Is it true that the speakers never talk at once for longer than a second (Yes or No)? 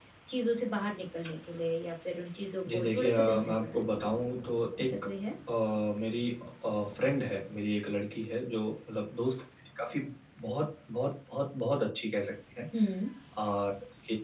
No